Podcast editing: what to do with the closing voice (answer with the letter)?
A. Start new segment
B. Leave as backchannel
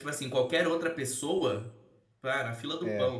B